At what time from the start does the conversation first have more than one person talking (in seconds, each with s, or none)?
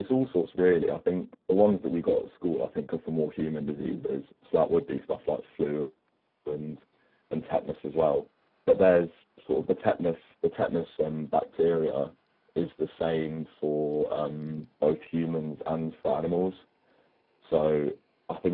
none